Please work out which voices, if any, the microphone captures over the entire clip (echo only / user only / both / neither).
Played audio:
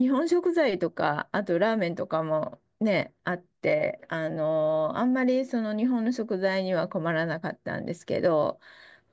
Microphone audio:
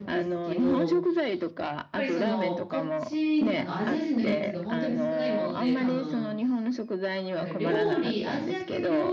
both